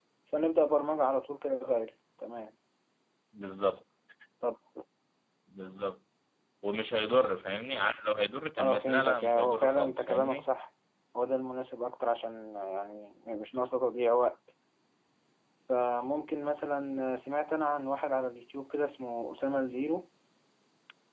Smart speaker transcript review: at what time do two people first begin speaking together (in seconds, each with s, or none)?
8.6 s